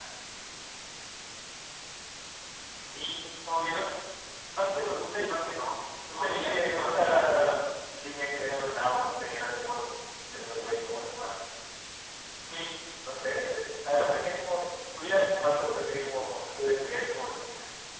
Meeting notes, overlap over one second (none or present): present